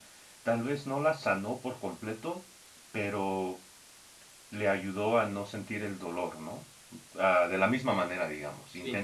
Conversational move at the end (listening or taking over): listening